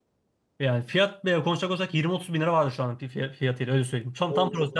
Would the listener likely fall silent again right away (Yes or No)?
No